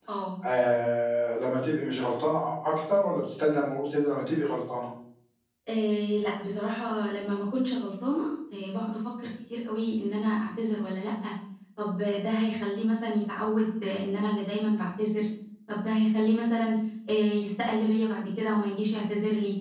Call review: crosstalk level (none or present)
none